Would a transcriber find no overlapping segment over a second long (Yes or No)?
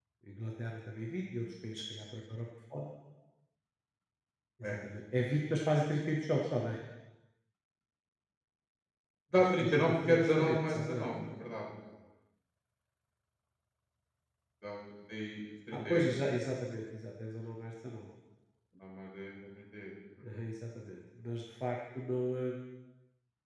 No